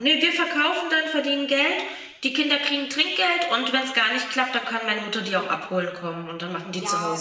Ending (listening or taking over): taking over